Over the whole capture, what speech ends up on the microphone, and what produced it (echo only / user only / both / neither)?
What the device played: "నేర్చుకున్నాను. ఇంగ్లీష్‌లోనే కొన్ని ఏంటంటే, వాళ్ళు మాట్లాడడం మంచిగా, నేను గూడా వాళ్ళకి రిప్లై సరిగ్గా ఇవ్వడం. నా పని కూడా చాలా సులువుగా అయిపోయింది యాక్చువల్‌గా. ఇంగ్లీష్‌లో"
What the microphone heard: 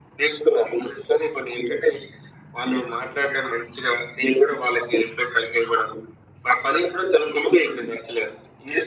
echo only